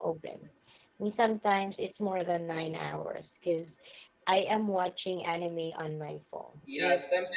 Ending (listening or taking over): taking over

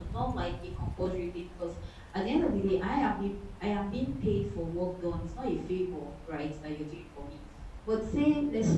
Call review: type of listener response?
listening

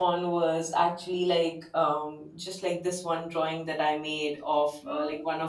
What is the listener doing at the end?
listening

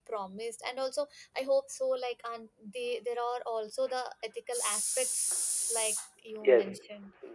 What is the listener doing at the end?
taking over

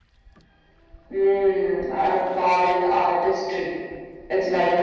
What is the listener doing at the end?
listening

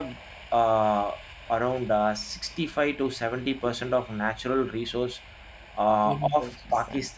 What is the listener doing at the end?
listening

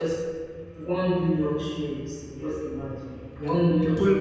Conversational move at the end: taking over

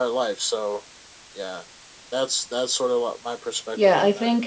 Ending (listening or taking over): taking over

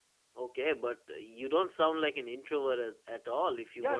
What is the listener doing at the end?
taking over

